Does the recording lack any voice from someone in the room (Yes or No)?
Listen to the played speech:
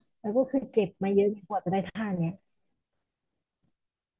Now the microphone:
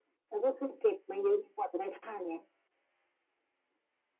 Yes